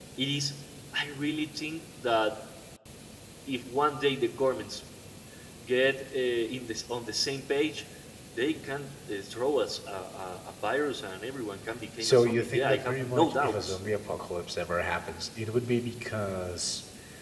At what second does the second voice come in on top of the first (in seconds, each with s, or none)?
12.0 s